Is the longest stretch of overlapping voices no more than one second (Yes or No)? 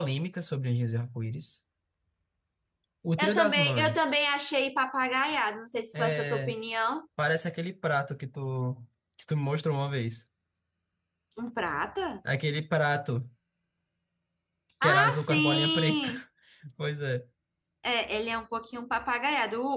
No